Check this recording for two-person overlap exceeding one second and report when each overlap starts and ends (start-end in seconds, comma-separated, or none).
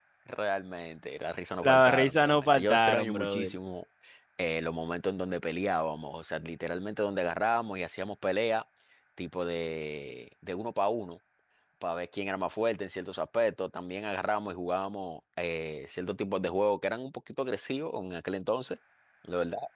1.6-3.5